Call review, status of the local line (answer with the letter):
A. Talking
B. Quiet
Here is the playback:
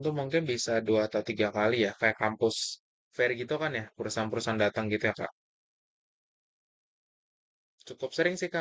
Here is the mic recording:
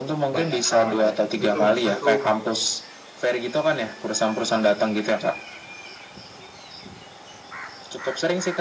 A